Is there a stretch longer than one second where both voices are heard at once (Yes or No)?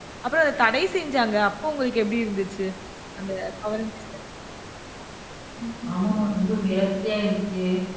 No